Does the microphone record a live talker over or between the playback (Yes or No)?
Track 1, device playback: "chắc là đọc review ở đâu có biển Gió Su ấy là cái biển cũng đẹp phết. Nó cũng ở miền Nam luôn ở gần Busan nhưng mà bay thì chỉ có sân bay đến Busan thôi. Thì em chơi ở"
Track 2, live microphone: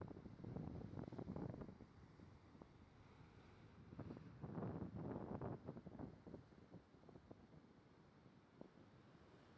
No